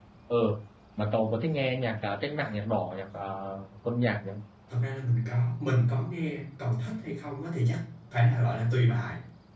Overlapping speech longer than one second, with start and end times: none

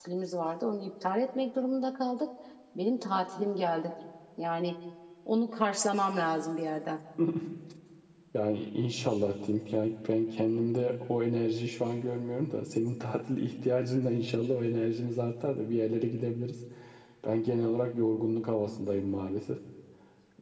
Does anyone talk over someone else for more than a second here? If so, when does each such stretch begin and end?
none

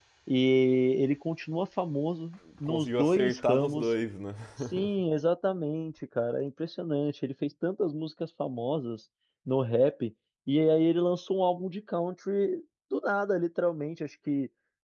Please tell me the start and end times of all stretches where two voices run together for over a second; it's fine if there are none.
2.6-3.9

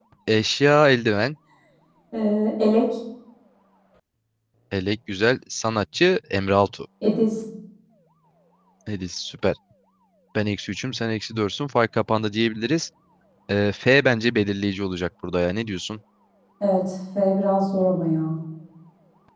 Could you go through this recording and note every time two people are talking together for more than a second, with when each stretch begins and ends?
none

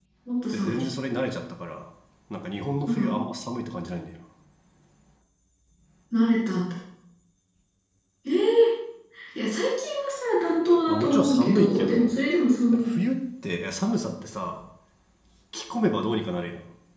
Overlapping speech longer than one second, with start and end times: 10.9-12.2

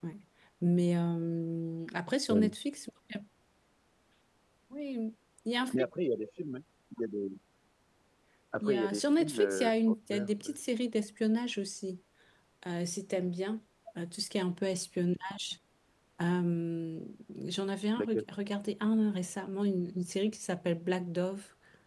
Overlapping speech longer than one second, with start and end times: 8.6-10.5

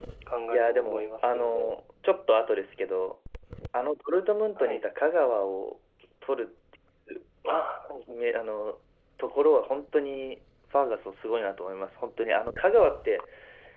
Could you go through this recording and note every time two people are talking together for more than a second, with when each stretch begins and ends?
0.5-1.7

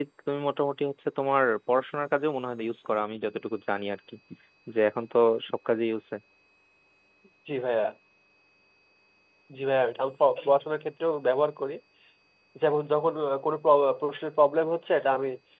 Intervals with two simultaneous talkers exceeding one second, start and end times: none

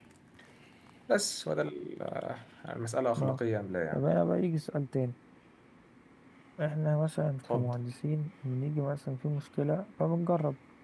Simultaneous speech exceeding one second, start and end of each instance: none

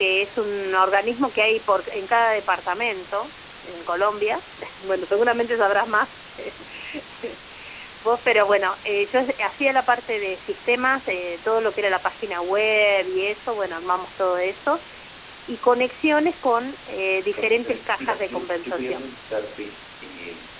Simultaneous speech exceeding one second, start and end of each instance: 17.4-19.1

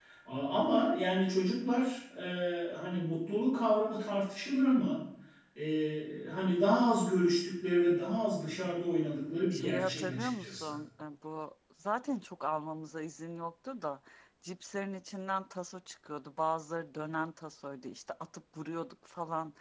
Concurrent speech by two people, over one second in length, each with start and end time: 9.5-10.8

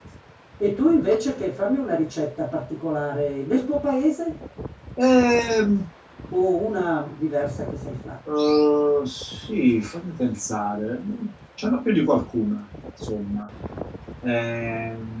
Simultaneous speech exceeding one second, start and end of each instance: none

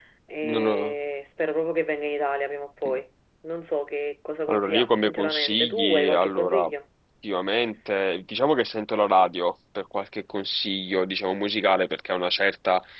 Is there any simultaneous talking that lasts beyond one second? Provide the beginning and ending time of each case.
4.5-6.6

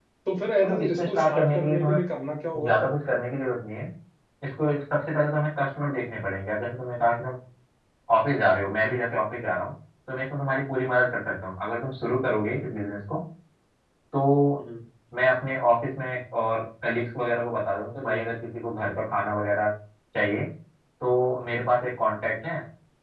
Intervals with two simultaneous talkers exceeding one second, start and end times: 0.6-2.0

